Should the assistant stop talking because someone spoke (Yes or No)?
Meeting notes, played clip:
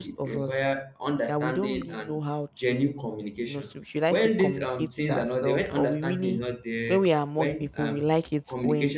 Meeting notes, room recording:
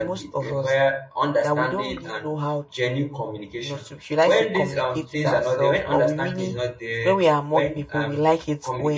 No